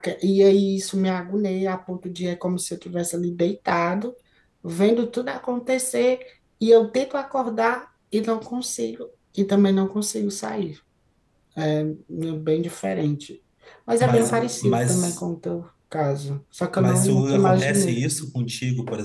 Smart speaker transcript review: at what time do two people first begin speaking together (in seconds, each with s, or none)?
14.0 s